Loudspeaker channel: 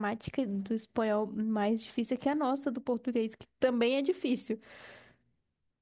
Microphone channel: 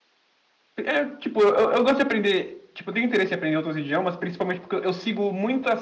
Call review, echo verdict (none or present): none